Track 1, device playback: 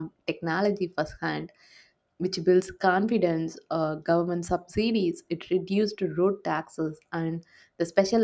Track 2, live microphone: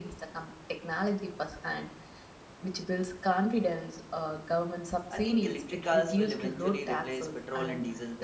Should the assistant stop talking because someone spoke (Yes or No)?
Yes